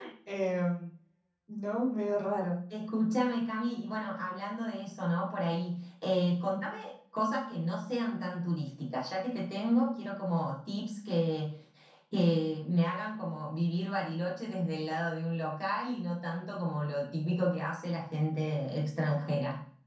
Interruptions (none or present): none